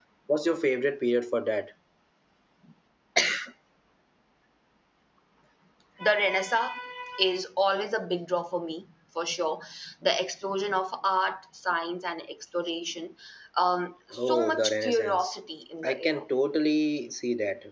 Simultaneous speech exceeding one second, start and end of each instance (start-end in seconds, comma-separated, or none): 14.2-15.4